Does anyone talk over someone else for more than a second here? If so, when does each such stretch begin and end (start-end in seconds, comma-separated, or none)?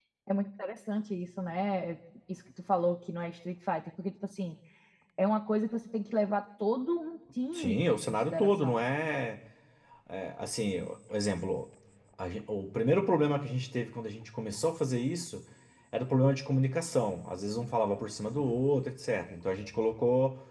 7.5-8.8